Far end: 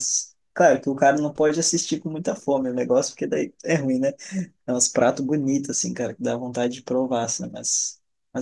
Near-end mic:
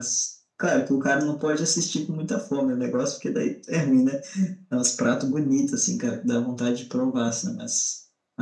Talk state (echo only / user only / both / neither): echo only